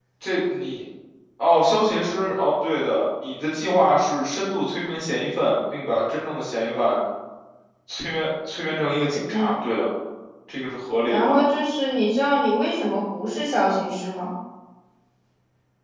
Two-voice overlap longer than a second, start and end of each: none

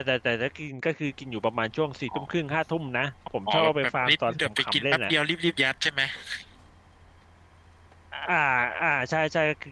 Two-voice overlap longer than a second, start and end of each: 3.5-5.1

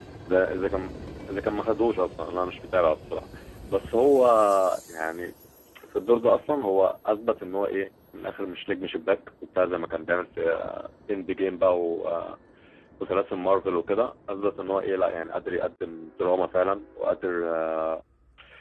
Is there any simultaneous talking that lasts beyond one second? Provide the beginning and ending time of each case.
none

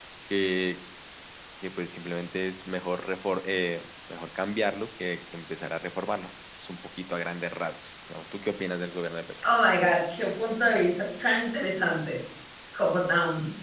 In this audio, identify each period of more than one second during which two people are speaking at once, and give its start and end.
none

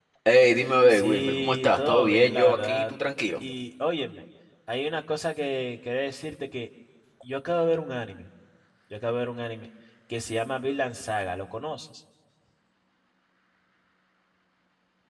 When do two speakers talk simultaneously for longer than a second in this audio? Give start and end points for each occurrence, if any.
0.9-2.9

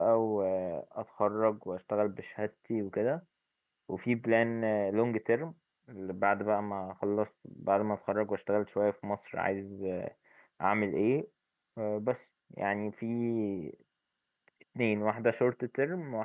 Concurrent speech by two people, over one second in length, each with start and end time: none

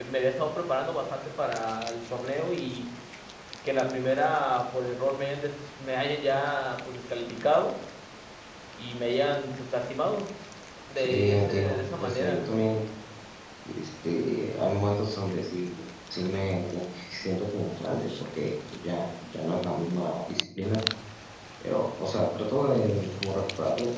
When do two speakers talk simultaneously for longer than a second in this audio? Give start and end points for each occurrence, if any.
11.0-12.5

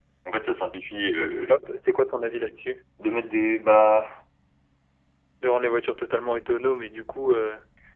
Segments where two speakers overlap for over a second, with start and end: none

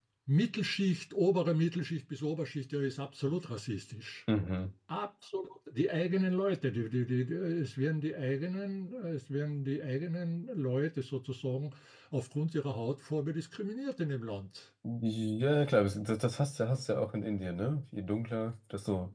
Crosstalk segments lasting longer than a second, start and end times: none

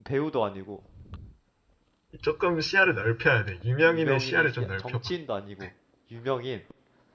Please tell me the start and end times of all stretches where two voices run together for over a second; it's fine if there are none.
3.9-5.1

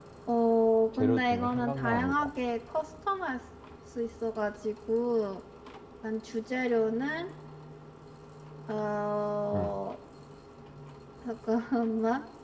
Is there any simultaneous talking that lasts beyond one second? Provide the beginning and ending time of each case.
1.0-2.3

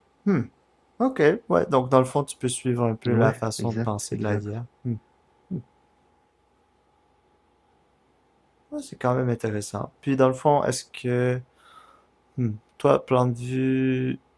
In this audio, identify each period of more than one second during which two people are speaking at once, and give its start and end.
3.1-4.4

